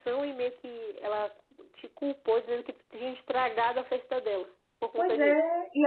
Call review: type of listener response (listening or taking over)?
taking over